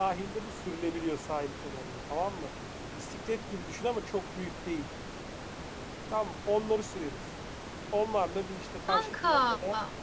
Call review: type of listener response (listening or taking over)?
listening